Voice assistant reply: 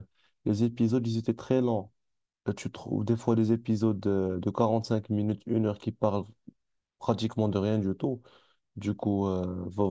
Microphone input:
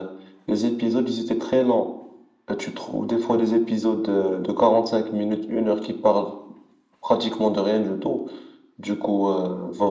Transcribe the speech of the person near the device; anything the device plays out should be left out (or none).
none